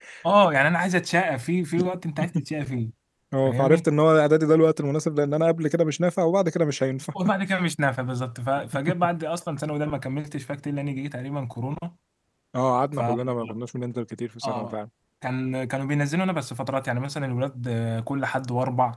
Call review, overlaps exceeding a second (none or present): none